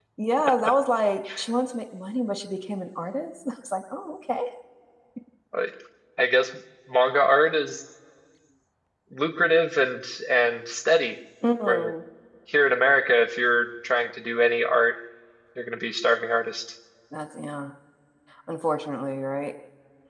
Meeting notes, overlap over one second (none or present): none